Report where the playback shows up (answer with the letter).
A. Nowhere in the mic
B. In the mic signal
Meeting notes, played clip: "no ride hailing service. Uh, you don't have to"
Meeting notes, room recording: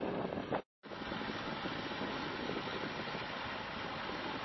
A